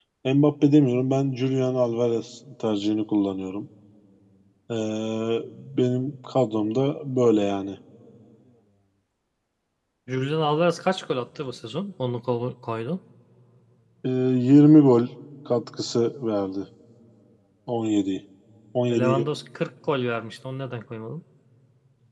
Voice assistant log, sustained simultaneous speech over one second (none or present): none